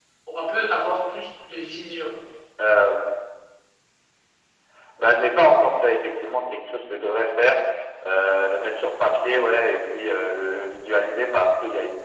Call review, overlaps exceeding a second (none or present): none